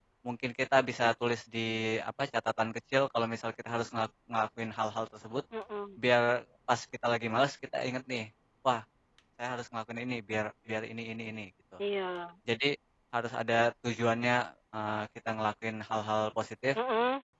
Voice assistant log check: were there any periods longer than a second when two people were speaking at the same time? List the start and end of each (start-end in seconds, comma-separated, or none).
none